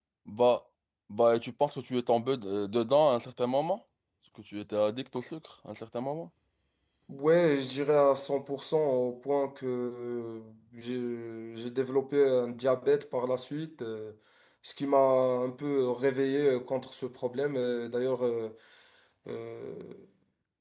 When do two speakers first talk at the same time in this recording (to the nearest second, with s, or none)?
none